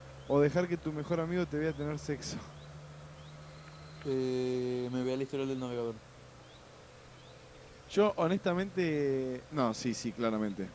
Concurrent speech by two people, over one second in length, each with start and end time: none

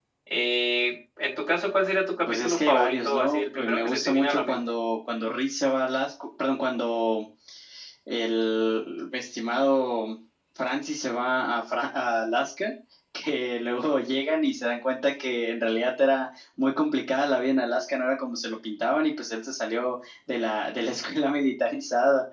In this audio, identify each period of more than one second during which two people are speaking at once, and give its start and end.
2.2-4.6

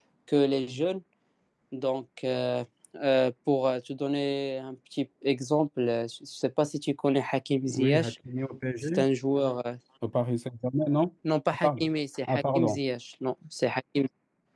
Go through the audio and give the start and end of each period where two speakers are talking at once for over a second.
none

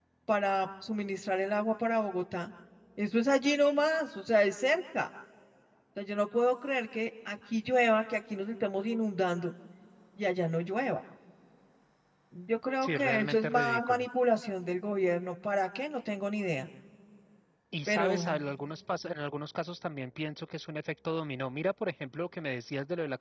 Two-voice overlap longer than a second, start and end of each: 12.8-14.1

